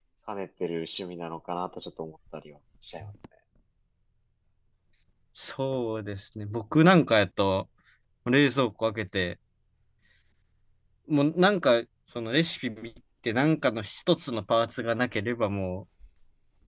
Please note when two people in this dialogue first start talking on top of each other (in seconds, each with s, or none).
none